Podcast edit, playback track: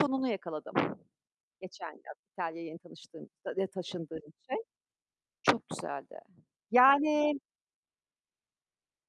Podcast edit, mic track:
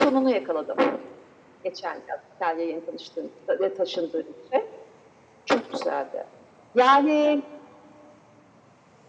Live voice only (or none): none